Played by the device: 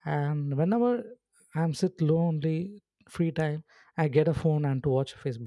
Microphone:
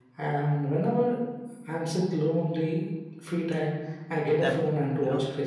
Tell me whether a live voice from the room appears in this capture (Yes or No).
Yes